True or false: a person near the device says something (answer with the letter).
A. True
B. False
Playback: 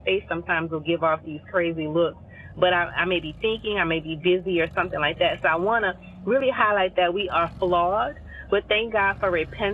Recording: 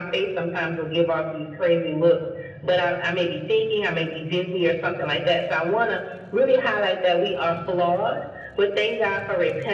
B